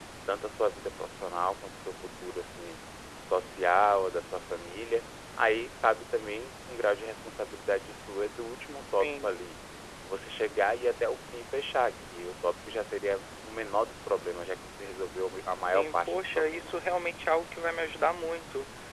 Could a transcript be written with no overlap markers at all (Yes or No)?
No